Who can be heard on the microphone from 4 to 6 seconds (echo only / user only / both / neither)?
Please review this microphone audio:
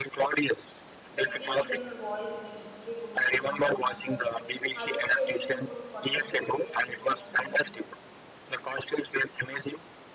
both